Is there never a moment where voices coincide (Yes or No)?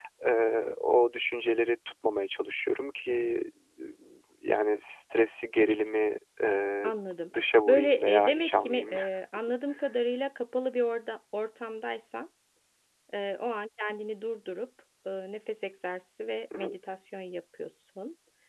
No